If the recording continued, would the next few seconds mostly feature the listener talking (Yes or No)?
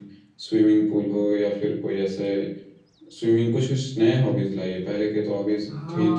Yes